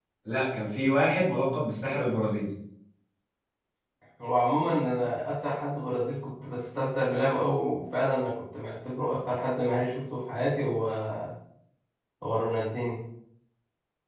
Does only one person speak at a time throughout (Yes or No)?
Yes